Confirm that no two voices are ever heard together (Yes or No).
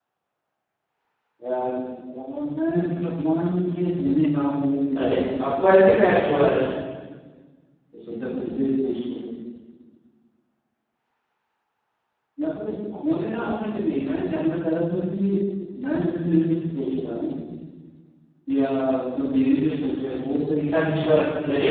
No